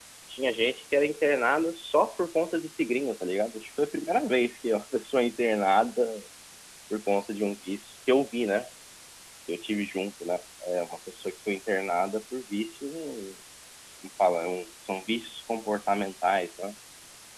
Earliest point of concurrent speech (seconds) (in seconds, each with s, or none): none